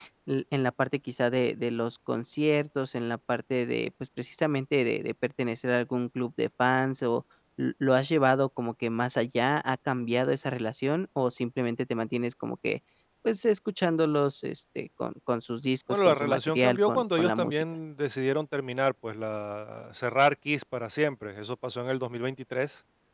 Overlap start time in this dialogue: 15.9 s

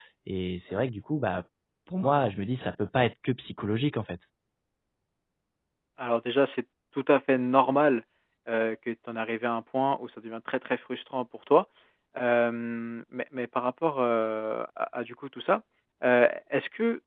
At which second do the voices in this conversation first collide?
none

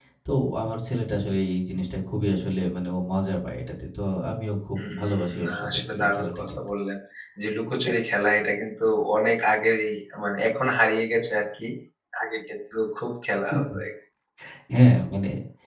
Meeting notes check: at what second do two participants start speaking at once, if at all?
4.8 s

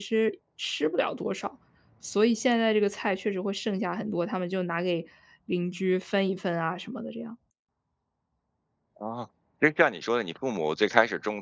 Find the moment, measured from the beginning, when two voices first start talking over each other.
none

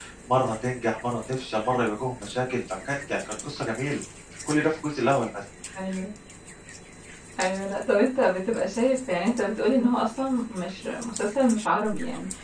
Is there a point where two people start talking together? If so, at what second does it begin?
none

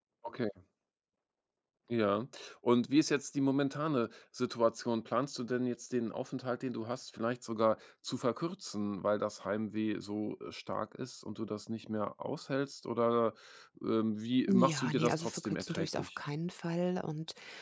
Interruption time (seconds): 14.5 s

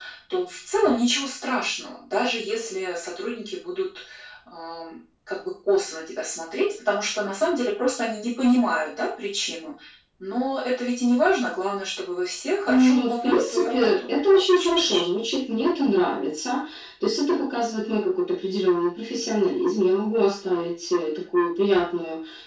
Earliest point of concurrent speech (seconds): 12.7 s

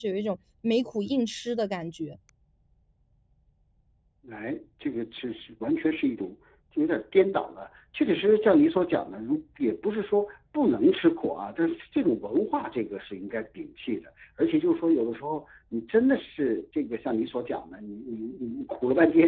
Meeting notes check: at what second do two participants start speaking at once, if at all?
none

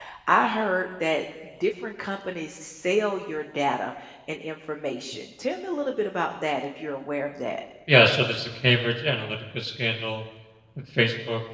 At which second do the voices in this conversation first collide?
none

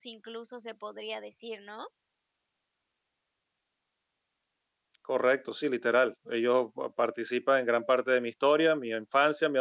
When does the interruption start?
none

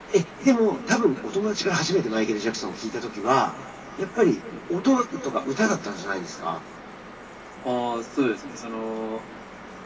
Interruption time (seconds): none

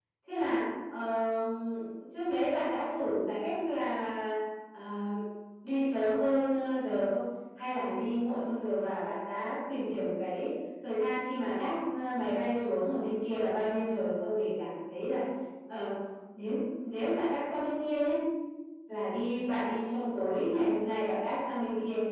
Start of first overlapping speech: none

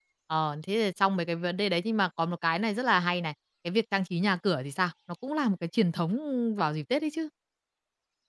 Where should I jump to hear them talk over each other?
none

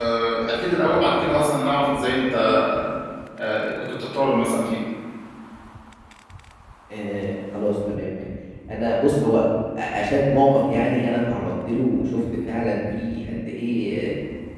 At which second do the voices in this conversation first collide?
none

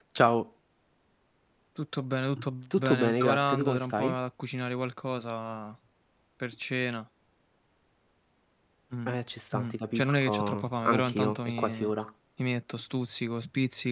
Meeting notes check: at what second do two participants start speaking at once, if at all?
2.8 s

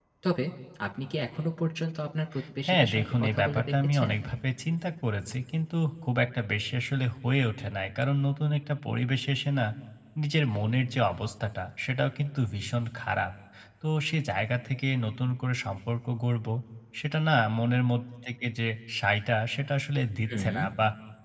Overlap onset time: 2.7 s

